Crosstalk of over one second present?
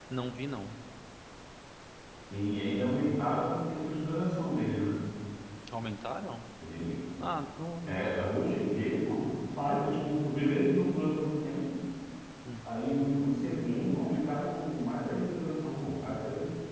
No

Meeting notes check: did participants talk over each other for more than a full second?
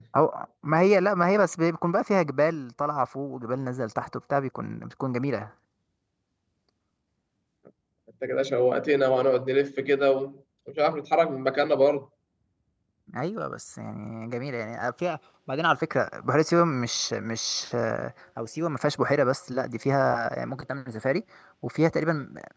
No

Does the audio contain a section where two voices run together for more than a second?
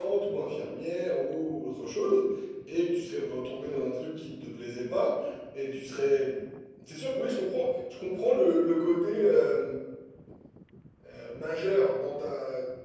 No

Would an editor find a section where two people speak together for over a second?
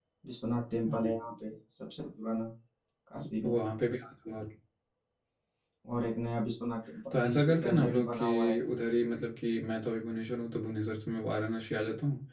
Yes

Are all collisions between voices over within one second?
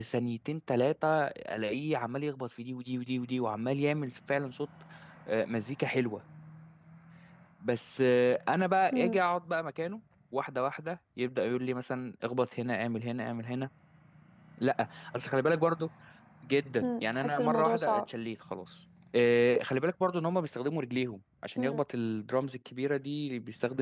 No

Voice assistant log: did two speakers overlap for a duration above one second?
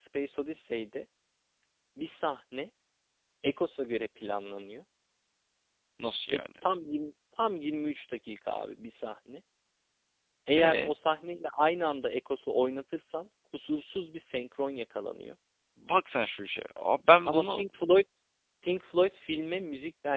No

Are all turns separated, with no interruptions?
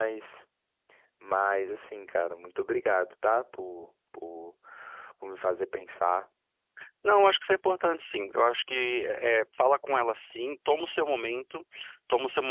Yes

